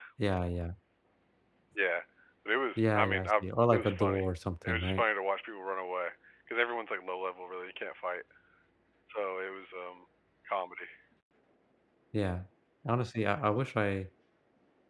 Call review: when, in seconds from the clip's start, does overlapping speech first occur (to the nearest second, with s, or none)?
3 s